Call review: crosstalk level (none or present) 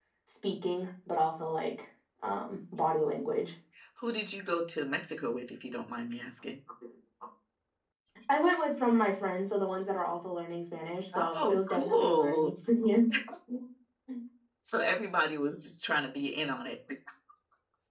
present